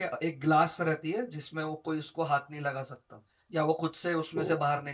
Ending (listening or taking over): listening